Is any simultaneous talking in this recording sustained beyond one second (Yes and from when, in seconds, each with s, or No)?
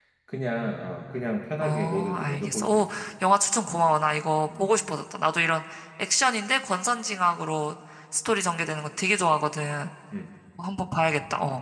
Yes, from 1.6 s